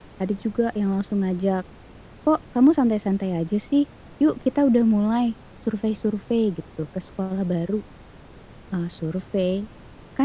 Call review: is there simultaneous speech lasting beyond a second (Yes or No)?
No